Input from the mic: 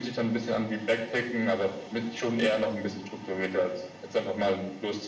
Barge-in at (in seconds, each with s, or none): none